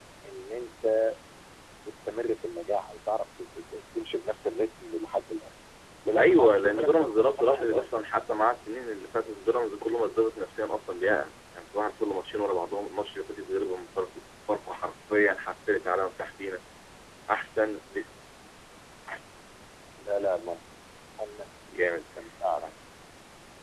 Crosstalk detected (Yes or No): Yes